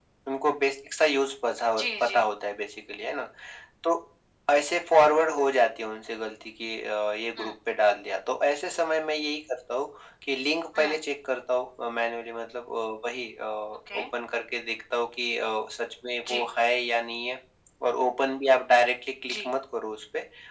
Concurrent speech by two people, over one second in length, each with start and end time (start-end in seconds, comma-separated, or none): none